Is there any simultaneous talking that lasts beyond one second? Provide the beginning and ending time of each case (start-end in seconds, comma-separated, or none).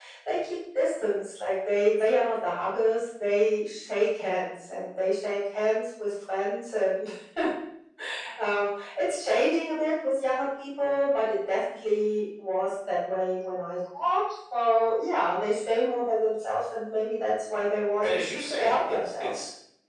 18.0-19.3